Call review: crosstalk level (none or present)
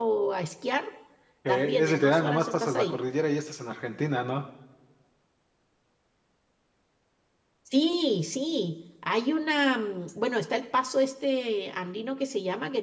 present